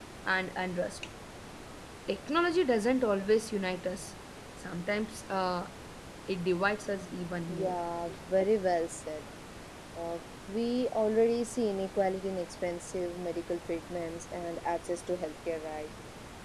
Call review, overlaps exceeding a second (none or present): none